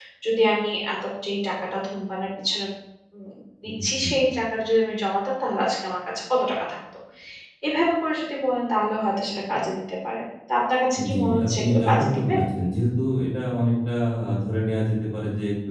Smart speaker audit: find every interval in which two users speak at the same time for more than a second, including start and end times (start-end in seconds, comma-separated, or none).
11.1-12.3